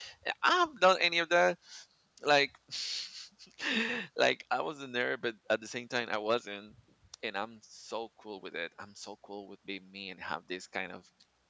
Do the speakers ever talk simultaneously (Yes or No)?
No